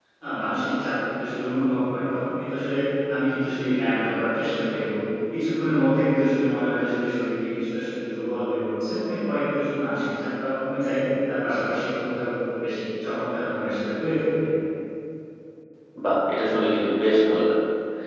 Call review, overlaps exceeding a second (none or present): none